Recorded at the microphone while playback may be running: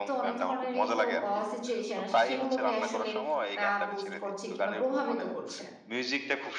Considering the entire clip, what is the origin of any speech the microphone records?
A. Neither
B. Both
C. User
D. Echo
B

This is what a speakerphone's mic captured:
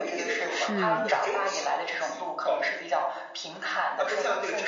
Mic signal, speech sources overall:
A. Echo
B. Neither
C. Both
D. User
C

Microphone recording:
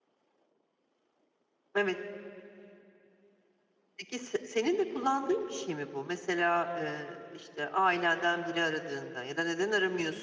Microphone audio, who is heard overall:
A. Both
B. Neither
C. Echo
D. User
D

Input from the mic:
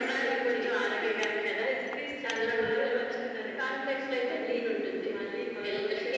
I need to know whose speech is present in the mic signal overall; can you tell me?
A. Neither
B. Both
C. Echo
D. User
C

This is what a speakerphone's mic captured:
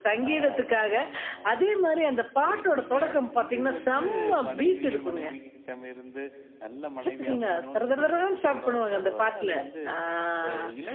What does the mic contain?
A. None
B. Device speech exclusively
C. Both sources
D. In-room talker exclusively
C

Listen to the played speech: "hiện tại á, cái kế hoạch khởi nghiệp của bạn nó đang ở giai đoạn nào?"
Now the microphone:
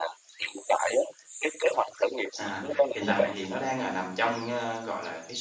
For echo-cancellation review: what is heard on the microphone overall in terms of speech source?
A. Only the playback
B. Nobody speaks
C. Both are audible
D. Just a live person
C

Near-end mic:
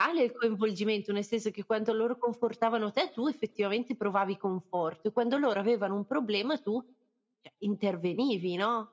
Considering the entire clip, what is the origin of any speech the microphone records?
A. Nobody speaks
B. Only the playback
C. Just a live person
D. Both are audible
B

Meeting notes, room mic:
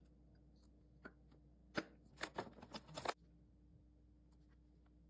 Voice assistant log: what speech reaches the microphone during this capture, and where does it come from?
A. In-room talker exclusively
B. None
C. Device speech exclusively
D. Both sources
B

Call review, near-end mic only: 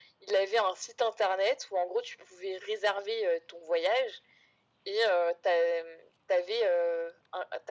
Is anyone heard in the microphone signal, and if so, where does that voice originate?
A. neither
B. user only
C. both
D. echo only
D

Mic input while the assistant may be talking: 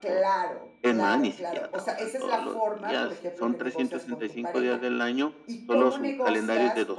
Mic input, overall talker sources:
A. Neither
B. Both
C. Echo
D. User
B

